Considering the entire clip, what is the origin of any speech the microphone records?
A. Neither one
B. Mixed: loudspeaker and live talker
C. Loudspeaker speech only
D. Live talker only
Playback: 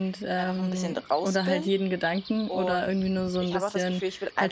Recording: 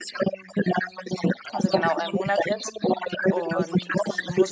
B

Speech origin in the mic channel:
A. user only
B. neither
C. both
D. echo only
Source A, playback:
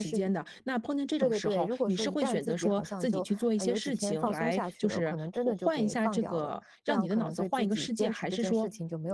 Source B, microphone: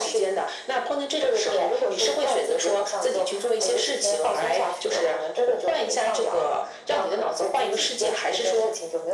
D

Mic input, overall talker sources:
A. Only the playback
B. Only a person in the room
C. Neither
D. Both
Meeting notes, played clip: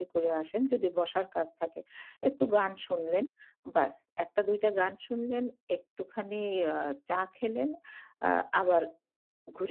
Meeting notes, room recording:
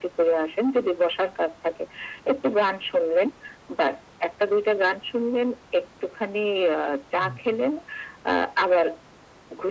D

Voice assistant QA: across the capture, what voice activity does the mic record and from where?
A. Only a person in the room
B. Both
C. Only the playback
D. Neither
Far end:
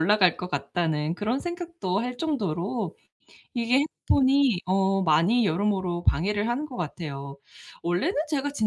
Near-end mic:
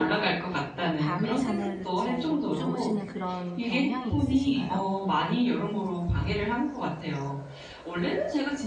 B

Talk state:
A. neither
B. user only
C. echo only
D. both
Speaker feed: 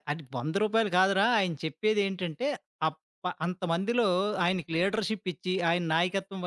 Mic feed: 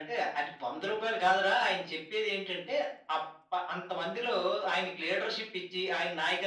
C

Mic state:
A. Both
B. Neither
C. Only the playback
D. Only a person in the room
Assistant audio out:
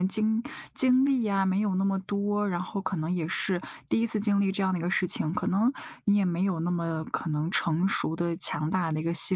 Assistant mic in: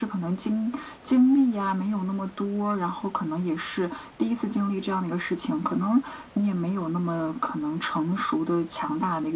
C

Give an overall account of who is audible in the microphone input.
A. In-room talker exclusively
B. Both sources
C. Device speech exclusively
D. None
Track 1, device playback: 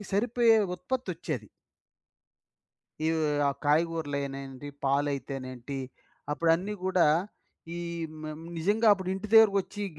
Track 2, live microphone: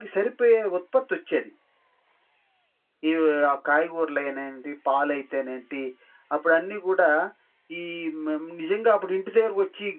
C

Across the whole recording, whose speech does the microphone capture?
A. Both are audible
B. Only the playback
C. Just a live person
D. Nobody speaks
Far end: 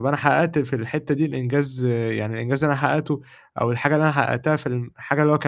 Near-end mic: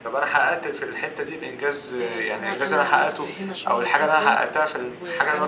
A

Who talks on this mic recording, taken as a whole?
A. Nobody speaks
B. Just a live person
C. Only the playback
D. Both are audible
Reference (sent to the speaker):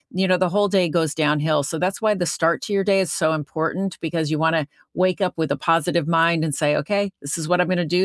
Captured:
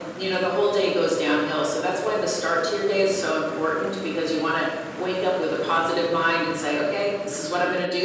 C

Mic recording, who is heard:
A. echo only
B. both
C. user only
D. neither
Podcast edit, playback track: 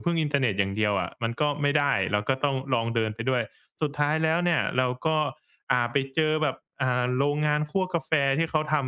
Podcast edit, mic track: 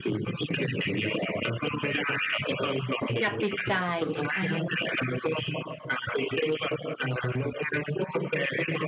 B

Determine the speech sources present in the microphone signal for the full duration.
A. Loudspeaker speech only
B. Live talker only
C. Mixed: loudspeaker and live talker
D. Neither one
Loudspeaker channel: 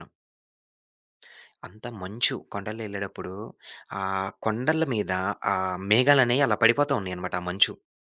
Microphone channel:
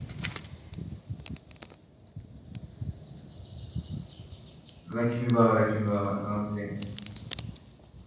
B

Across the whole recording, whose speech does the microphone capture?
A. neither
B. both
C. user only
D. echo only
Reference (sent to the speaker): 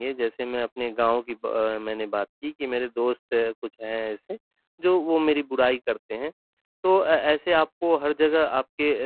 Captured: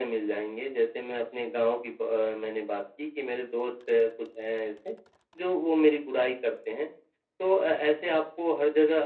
D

